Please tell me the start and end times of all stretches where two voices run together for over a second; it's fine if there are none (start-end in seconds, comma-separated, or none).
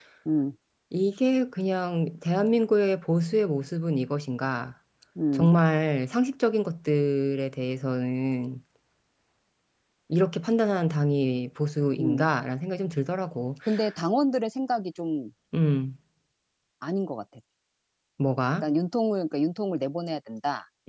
none